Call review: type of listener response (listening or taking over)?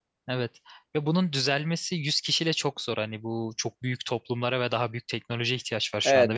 taking over